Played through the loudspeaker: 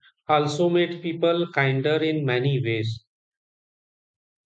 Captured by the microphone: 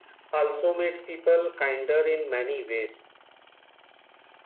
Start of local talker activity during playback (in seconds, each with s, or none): none